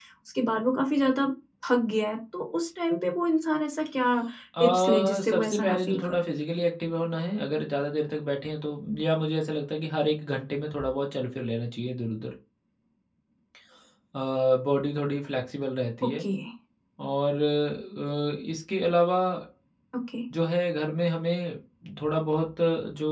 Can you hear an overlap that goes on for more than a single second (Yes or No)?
Yes